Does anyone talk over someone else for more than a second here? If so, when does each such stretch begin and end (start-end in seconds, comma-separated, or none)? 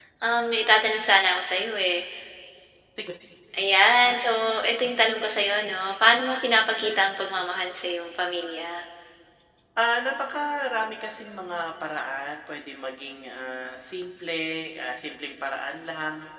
none